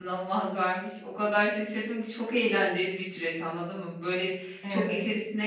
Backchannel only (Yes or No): Yes